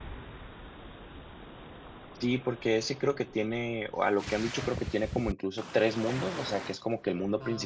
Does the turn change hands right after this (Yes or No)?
No